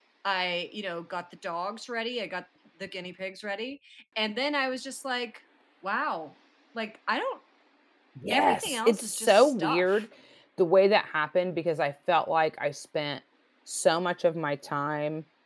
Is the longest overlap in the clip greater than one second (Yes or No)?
Yes